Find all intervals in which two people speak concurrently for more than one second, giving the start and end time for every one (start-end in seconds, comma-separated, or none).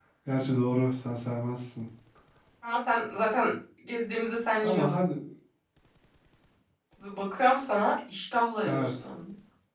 none